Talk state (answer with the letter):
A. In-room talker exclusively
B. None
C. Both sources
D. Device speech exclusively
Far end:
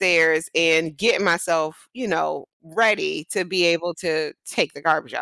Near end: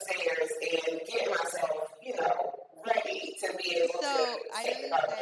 C